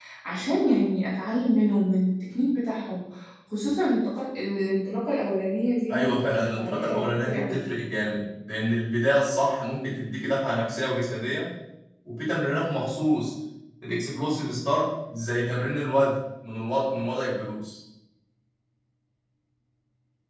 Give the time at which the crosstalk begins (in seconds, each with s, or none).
5.9 s